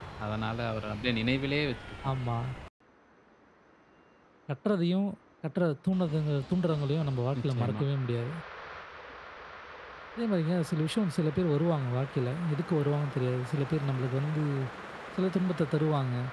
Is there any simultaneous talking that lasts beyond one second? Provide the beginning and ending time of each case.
none

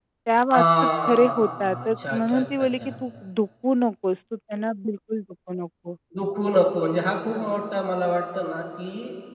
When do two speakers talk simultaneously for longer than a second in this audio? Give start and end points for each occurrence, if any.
0.5-2.9

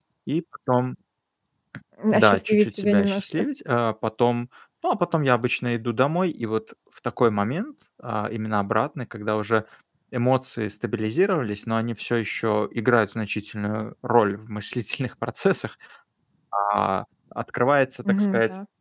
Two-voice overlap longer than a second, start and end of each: 2.1-3.4

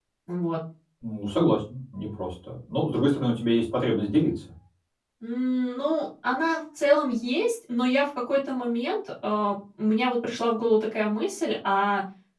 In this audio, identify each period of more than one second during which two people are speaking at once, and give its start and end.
none

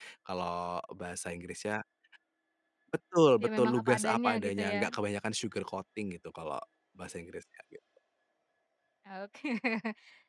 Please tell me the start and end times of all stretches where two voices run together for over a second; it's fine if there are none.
3.4-5.0

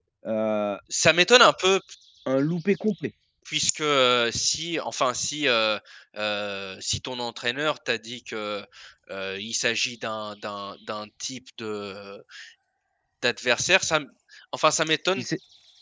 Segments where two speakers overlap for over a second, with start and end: none

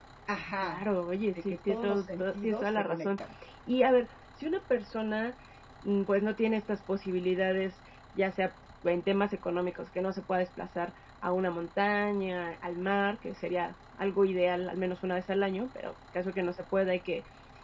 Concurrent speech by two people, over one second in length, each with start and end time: 1.5-3.1

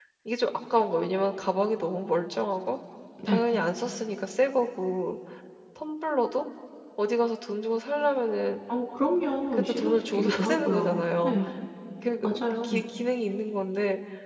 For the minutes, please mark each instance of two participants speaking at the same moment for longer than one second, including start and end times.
9.5-11.3

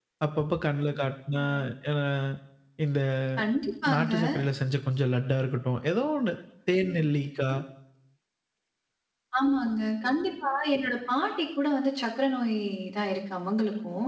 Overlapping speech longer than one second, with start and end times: none

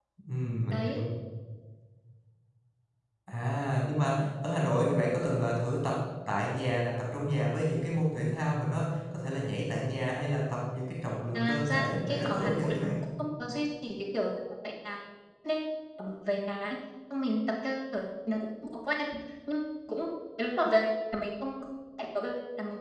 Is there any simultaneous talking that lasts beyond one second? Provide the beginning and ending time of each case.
11.3-13.0

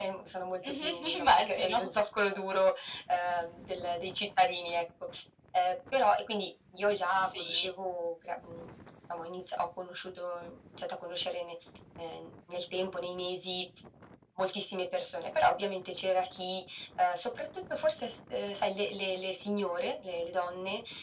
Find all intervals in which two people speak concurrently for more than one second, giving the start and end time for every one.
0.7-1.9

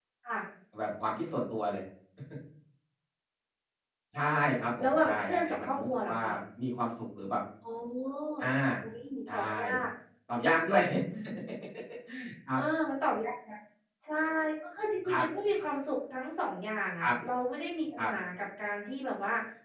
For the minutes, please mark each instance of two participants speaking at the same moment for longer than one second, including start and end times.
4.8-6.2

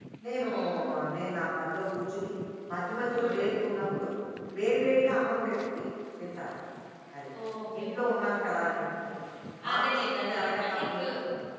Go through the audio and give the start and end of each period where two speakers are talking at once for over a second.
9.7-11.0

